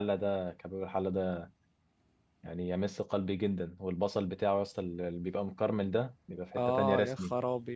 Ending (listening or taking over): taking over